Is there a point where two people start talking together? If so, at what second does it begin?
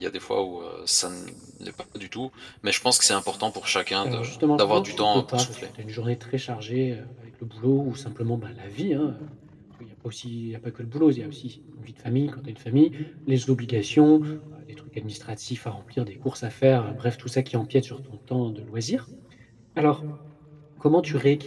4.0 s

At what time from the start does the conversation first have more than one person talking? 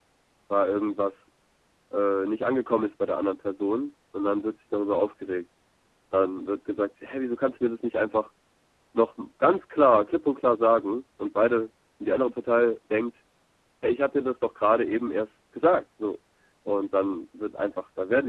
none

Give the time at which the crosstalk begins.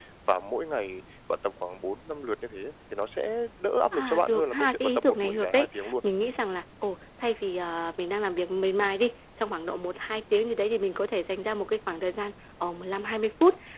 3.9 s

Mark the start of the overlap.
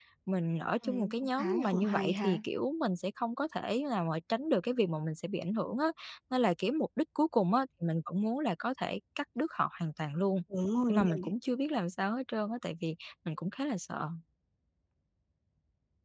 0.8 s

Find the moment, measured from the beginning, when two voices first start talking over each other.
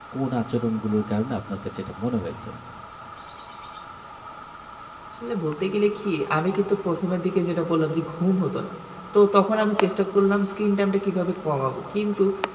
none

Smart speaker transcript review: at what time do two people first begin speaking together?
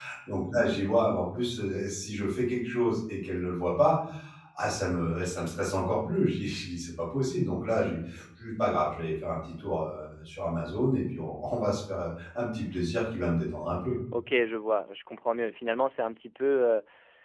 none

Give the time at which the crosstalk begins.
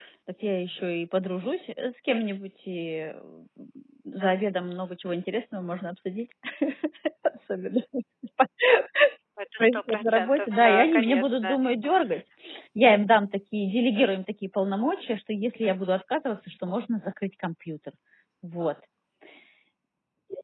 9.6 s

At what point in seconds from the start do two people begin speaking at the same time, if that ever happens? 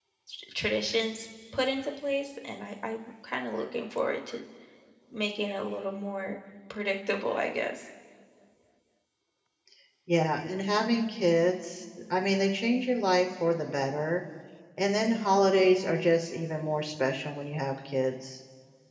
none

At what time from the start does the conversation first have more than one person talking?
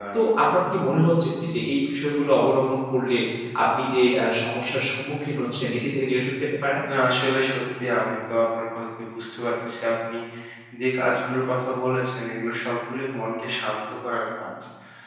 none

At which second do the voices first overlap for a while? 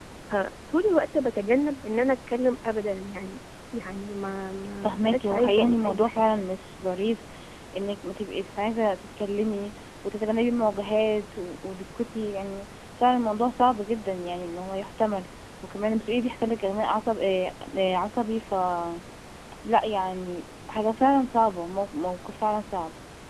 4.8 s

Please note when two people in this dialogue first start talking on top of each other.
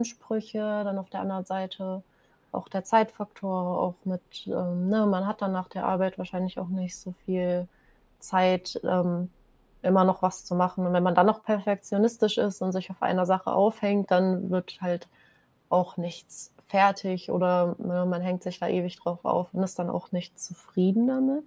none

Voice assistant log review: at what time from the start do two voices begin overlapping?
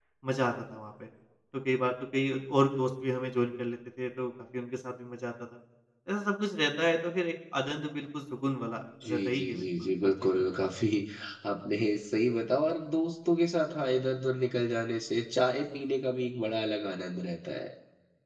9.0 s

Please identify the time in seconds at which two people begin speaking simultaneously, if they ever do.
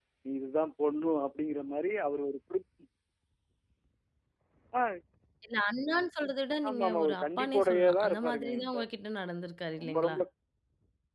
6.7 s

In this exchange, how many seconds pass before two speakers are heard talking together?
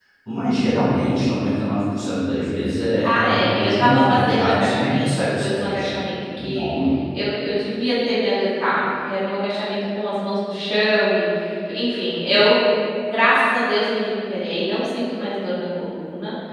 3.0 s

